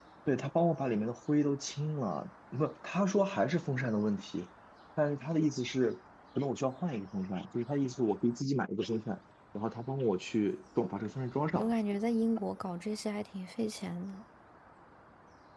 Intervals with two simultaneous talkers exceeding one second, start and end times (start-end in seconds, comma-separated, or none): none